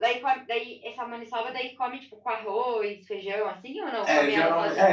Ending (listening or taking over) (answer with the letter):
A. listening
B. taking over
B